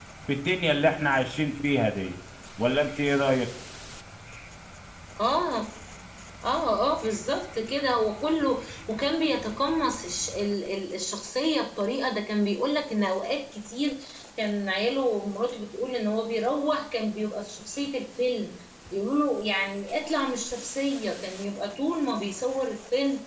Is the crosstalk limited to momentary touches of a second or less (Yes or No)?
Yes